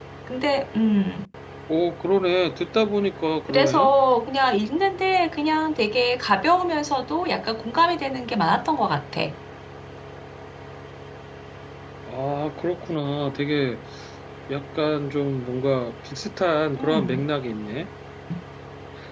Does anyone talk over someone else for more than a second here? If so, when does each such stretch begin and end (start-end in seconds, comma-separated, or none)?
none